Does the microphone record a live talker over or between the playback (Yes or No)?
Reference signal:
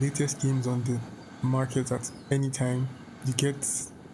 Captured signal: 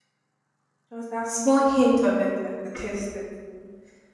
Yes